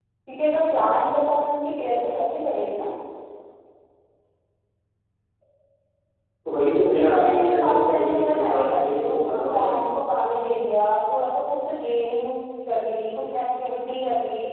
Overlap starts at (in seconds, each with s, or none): 6.9 s